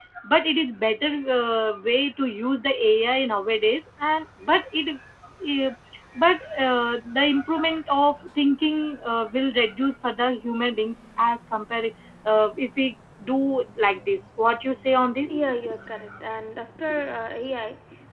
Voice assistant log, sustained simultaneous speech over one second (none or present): none